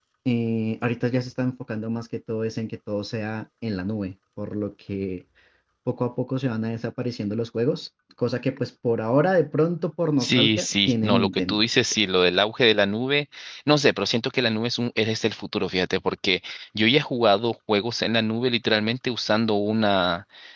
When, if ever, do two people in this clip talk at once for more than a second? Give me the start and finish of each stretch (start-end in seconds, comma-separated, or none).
10.2-11.6